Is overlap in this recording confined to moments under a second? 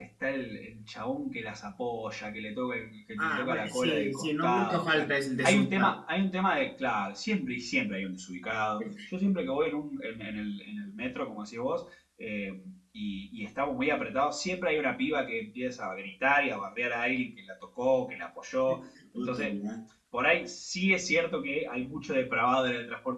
No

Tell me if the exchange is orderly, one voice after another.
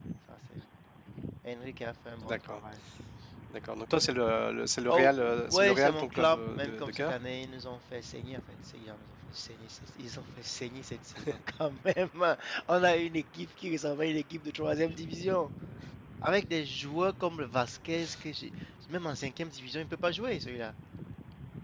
No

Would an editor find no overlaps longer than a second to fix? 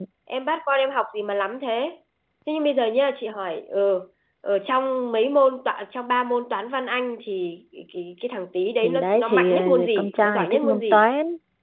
No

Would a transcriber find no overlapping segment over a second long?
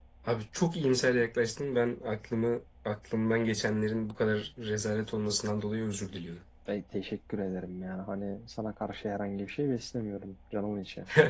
Yes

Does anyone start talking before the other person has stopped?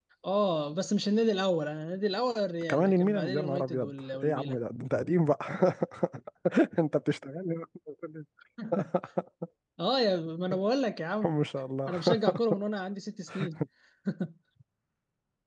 Yes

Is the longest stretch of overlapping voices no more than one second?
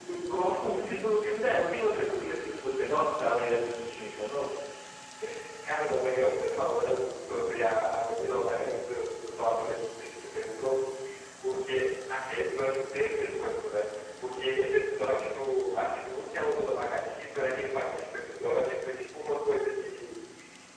Yes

